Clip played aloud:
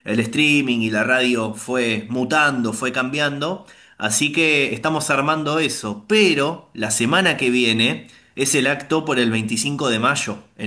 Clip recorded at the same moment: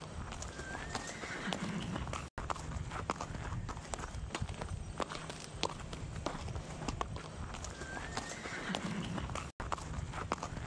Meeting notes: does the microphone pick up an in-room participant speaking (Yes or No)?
No